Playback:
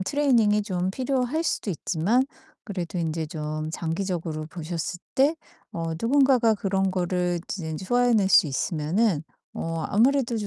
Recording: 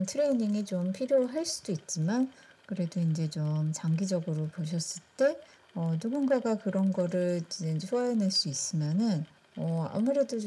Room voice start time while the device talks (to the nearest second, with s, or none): none